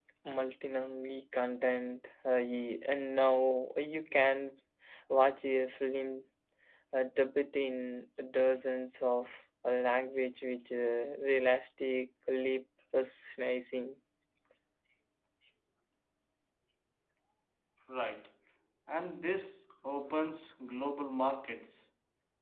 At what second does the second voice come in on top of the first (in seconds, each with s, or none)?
none